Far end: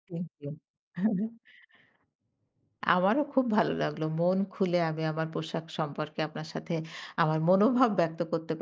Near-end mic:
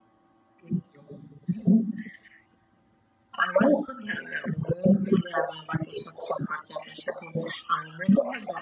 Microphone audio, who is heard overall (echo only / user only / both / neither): echo only